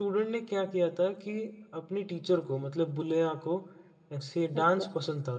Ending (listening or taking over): listening